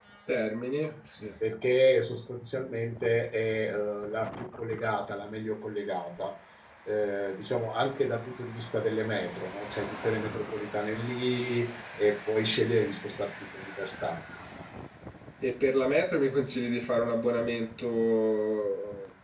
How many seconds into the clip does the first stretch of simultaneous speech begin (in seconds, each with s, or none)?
none